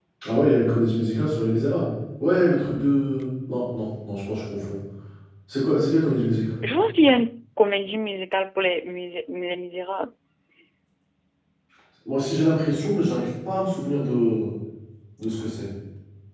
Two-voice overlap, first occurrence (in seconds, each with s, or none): none